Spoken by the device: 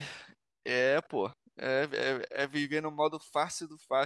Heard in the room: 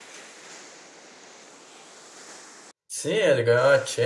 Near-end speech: present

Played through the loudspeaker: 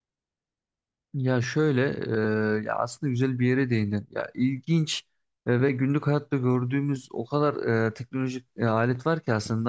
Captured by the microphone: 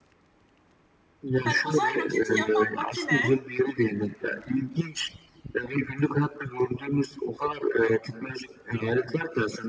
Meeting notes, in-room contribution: present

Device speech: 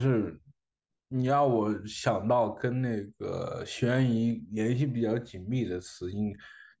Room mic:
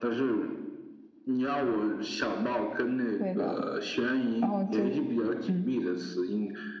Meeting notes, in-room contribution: present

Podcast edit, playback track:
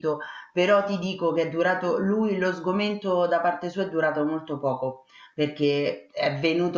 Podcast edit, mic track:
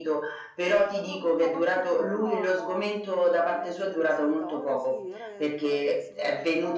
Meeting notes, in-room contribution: present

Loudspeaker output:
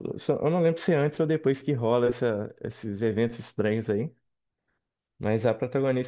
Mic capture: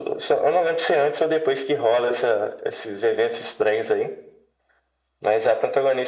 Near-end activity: none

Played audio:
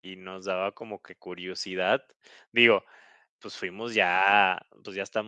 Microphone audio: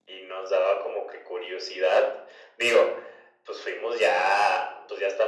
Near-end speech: none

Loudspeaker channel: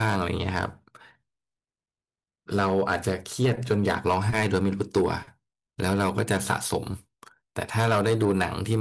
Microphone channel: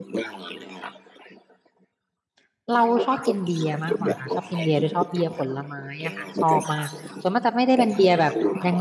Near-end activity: present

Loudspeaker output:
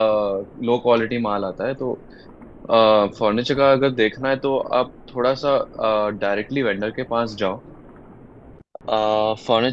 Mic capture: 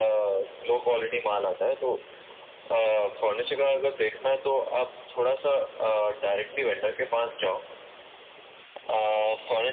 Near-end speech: none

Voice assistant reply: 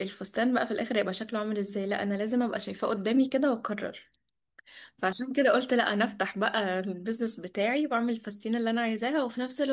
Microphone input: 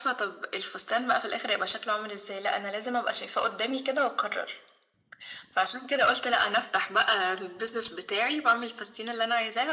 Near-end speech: none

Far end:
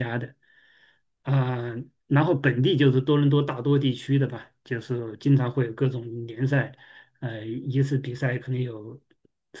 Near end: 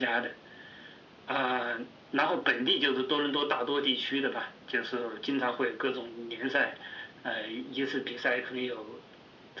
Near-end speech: none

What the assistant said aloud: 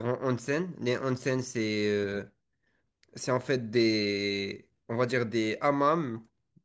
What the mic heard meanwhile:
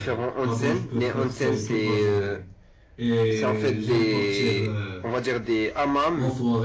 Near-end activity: present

